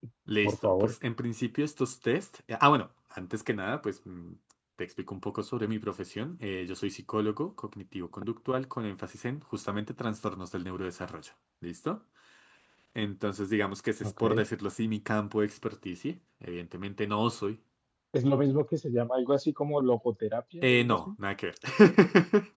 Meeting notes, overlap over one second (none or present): none